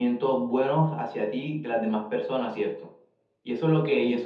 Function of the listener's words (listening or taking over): listening